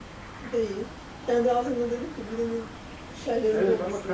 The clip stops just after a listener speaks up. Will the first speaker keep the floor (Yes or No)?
No